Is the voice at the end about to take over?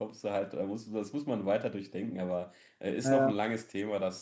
No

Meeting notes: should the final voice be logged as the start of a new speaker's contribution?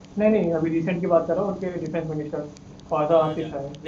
Yes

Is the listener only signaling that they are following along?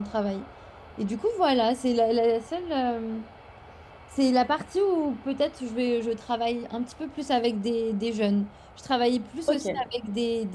Yes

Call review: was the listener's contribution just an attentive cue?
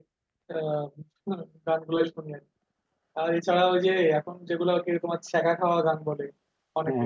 Yes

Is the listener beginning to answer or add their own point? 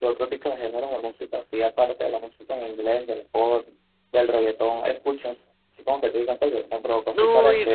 Yes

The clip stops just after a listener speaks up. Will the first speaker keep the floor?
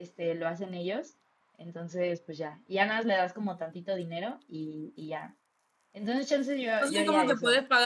No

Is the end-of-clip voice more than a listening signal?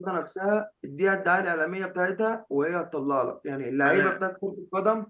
No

